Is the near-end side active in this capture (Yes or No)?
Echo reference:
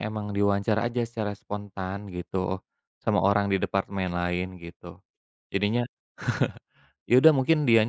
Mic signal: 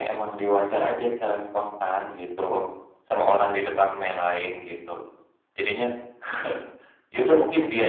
No